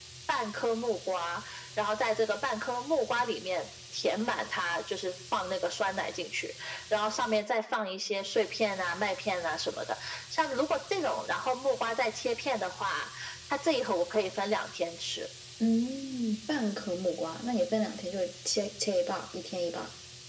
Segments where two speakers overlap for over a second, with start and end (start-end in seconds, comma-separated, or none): none